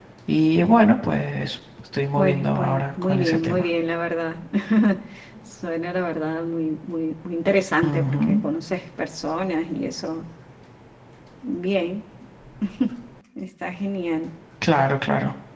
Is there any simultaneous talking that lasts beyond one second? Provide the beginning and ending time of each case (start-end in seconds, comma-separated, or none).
2.2-3.7